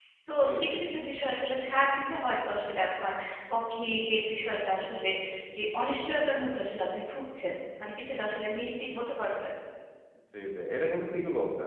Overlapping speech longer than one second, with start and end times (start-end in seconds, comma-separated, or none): none